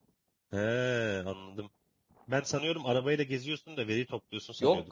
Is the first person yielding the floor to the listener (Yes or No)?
Yes